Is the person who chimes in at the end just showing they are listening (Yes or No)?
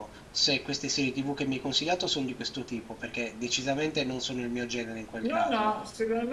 No